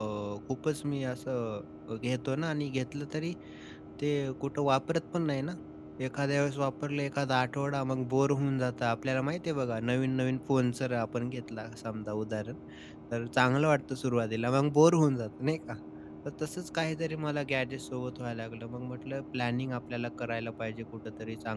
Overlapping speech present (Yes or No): No